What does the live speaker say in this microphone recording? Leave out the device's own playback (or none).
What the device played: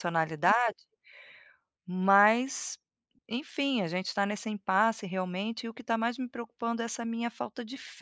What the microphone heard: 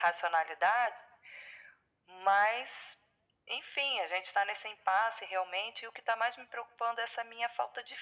none